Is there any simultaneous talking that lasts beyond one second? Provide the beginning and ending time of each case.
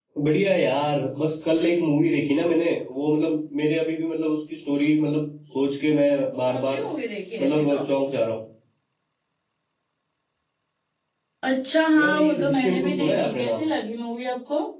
12.0-13.7

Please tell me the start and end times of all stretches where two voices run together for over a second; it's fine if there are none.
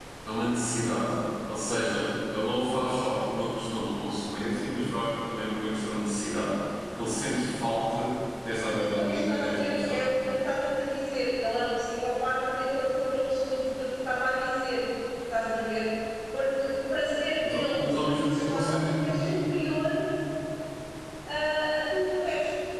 8.8-10.0, 17.5-19.4

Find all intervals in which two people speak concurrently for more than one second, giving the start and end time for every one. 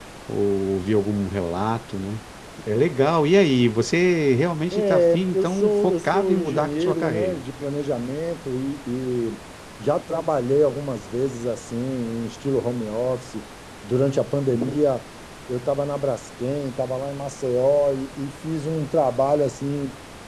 4.7-7.4

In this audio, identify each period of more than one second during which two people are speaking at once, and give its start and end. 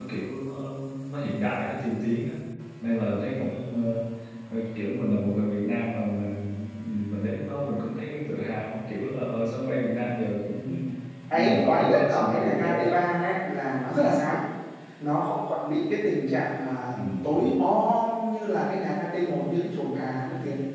11.3-12.9

